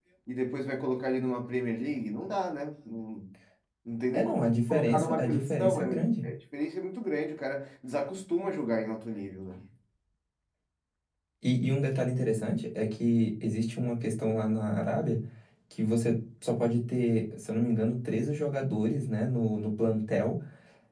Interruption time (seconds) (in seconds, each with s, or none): 4.1 s